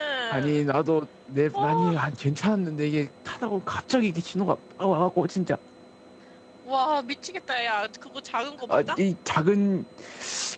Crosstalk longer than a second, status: none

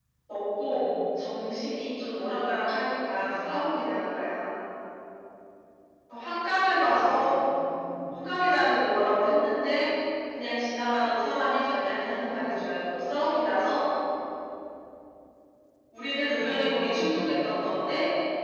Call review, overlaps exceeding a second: present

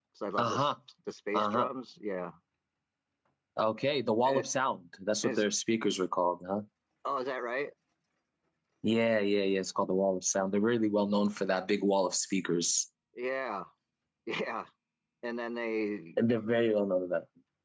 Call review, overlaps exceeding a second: none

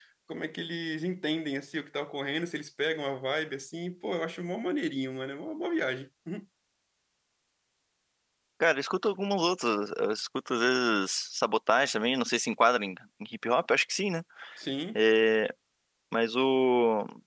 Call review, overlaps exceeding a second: none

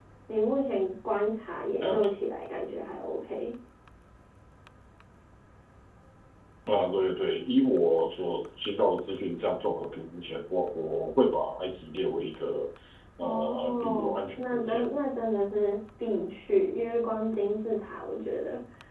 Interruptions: present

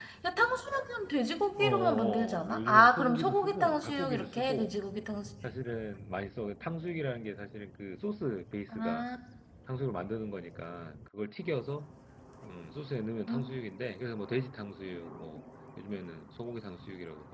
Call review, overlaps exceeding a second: present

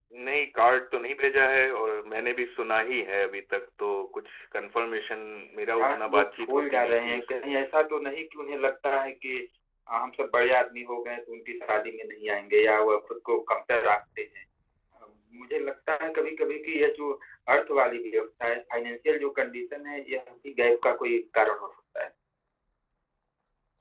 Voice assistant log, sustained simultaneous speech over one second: present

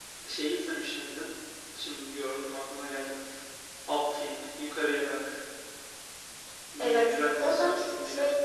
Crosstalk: present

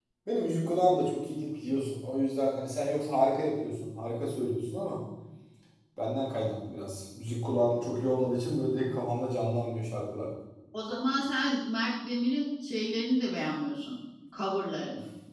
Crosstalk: none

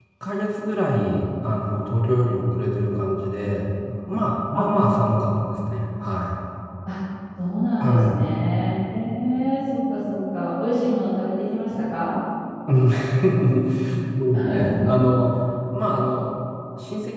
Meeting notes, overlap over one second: none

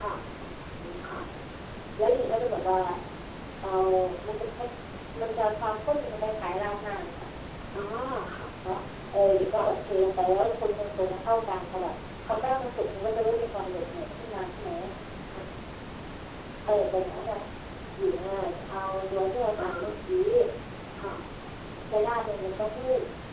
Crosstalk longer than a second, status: none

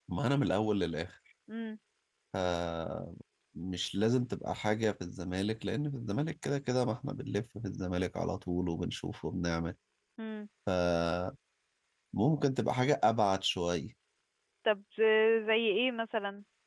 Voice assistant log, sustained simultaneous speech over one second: none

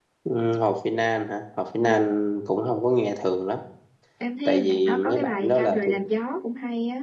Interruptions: present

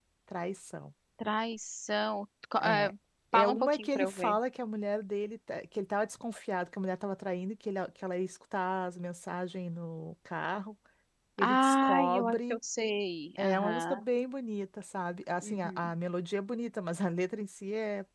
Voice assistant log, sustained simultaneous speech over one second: present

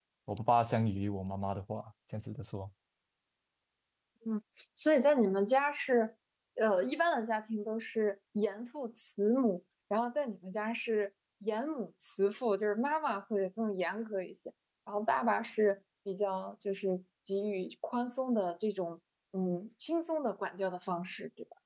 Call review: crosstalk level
none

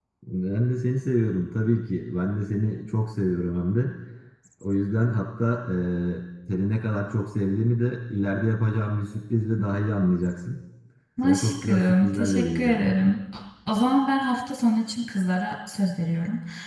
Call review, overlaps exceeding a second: present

